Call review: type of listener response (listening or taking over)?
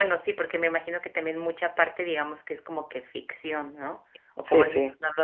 listening